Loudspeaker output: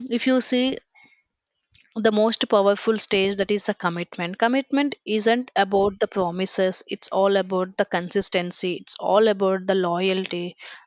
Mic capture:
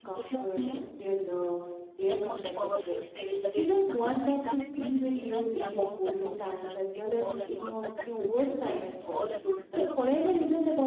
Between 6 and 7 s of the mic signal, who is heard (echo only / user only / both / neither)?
both